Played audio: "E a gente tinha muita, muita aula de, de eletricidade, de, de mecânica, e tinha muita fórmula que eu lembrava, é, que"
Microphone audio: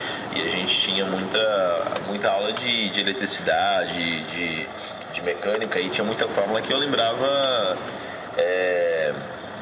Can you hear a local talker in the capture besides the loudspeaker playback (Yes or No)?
No